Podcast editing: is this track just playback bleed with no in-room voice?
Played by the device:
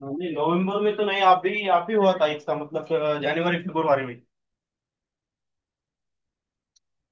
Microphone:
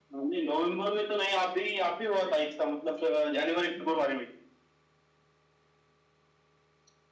Yes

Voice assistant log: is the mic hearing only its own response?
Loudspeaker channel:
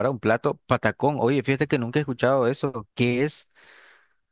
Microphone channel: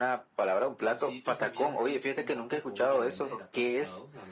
No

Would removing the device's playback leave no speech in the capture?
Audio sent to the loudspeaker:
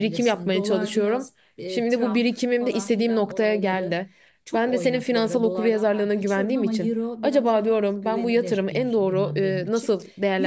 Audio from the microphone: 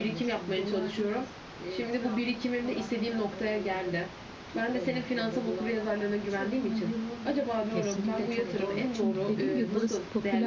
No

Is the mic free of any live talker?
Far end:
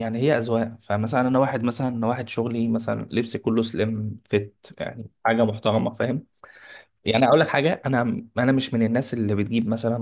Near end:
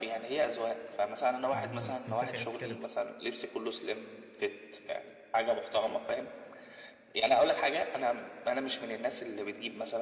No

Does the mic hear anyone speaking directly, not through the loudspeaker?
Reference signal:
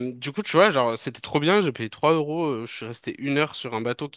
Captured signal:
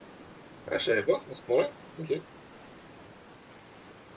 Yes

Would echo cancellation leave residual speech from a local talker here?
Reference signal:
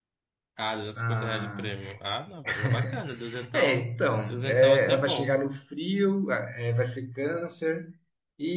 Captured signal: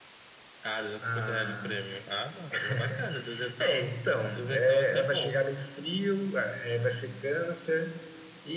No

